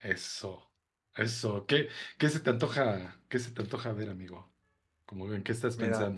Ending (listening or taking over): taking over